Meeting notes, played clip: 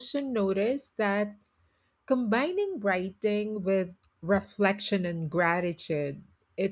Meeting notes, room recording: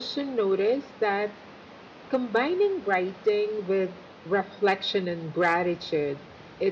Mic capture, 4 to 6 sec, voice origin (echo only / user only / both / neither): echo only